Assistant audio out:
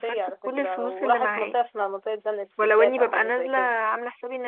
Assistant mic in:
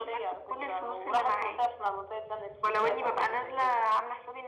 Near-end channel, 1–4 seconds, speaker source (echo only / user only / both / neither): echo only